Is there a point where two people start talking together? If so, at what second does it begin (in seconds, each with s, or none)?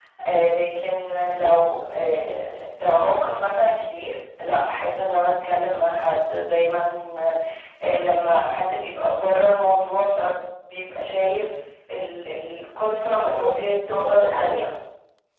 12.9 s